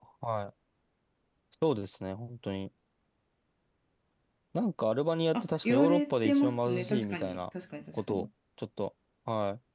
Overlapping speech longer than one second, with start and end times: 5.3-7.4

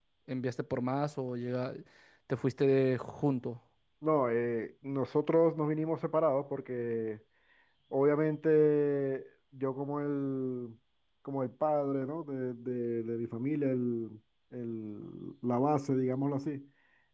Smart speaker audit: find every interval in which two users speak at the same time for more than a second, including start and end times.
none

